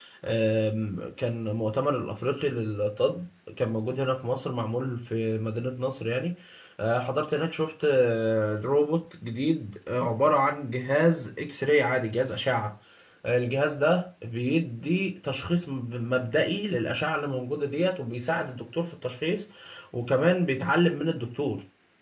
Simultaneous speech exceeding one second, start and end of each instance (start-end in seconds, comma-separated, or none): none